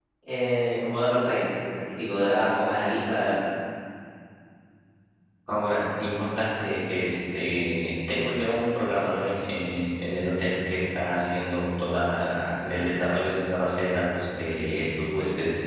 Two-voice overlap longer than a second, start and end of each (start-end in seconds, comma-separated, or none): none